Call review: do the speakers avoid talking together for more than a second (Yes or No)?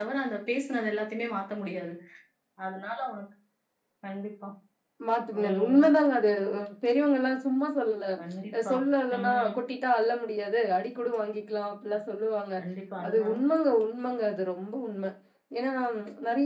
Yes